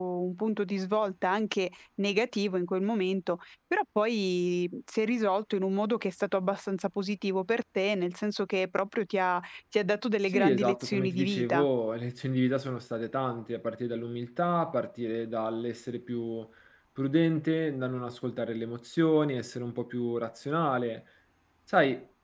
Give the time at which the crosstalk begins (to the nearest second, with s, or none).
10 s